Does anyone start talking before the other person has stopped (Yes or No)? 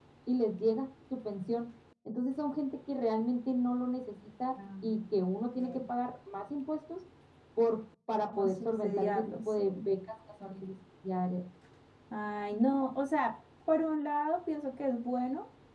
Yes